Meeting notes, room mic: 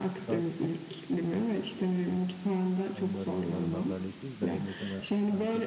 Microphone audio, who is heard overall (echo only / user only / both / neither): both